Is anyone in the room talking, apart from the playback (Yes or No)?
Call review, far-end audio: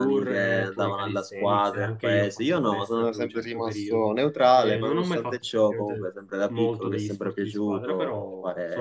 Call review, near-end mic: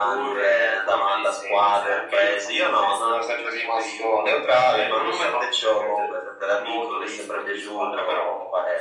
No